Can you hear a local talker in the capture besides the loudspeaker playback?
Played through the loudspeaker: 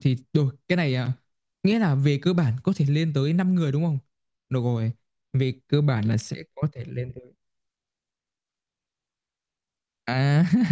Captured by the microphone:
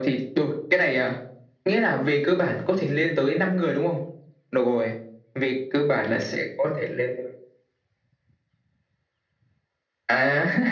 No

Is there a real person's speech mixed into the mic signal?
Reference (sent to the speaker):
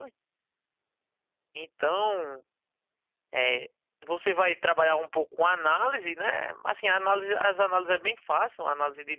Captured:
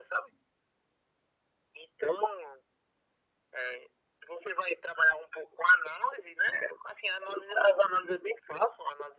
No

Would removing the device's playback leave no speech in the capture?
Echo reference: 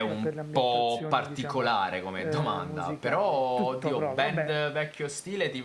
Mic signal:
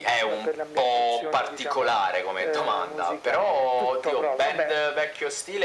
Yes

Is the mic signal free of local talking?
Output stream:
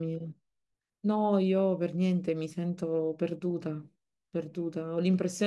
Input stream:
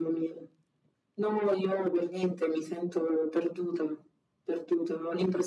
Yes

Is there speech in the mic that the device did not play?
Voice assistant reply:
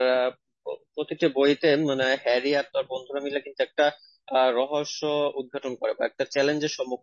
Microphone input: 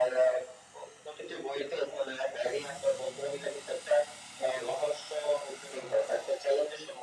No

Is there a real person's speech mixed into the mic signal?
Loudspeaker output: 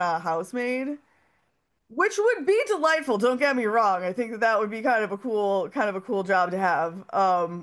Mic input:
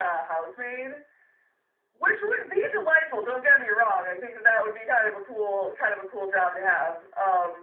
No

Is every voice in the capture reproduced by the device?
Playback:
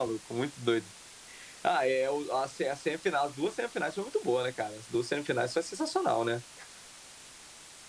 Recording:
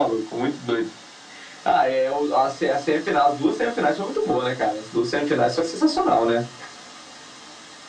Yes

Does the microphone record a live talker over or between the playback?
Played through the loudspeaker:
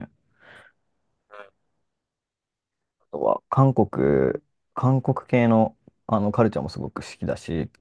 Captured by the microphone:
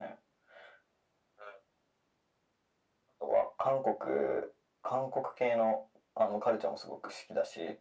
No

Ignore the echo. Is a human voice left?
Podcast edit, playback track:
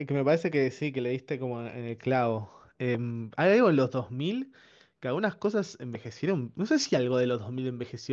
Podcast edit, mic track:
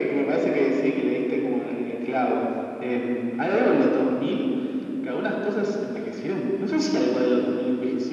No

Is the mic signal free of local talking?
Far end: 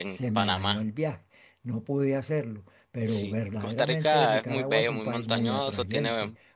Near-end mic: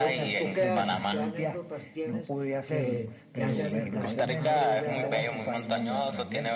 No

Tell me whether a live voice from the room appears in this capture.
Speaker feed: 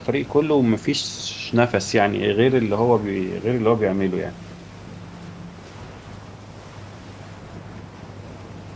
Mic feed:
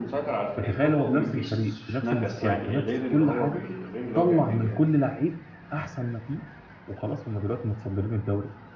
Yes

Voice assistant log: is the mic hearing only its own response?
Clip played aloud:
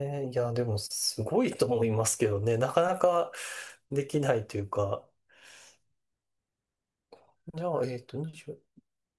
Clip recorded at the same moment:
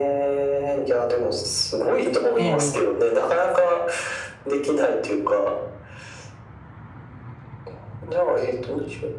No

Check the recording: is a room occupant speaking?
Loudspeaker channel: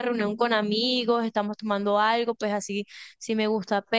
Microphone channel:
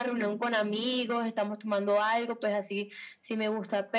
No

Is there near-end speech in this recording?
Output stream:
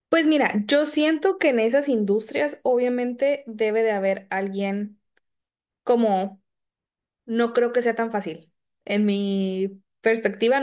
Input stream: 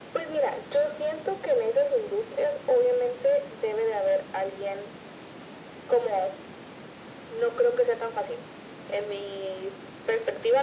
No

